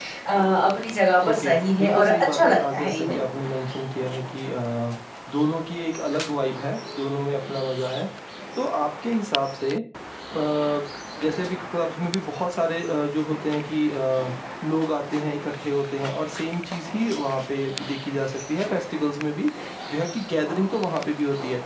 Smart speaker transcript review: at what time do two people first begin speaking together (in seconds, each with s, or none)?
1.2 s